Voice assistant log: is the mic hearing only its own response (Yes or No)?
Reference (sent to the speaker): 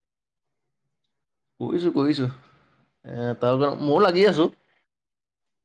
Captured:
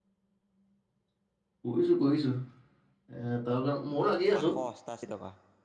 No